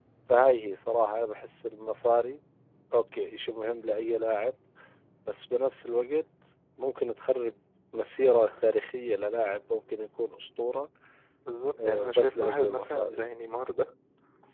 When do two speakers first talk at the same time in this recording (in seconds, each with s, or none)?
11.8 s